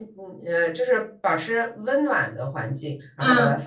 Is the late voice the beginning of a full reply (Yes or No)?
Yes